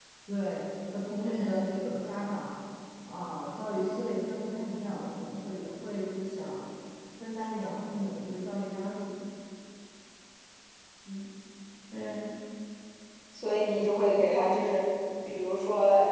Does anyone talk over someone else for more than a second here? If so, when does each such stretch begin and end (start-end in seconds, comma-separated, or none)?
none